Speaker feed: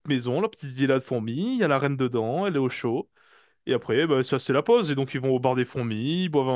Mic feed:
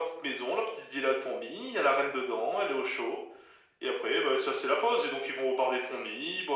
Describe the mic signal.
echo only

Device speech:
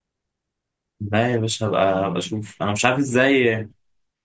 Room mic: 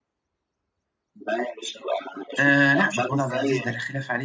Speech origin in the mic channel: both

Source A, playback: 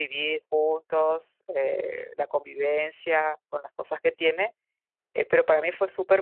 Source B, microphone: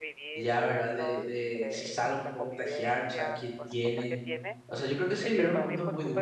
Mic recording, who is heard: both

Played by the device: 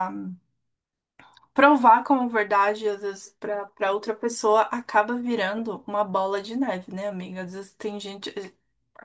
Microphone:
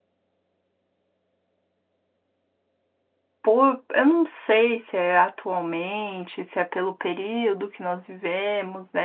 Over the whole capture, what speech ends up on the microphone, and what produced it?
user only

